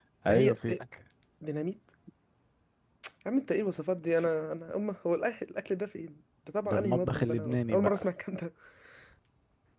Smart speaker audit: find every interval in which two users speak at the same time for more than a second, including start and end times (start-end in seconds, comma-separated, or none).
6.6-8.0